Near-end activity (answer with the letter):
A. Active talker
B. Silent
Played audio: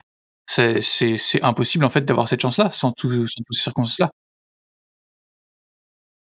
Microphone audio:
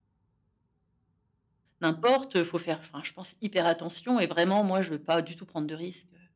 A